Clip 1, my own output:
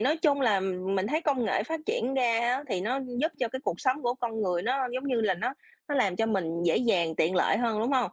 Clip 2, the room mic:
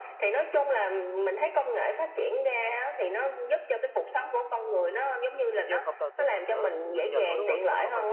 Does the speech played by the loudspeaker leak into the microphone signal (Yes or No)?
Yes